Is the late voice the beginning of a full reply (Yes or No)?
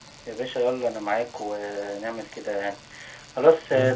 No